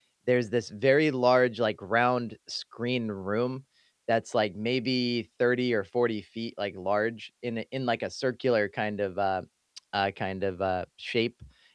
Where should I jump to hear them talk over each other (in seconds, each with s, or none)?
none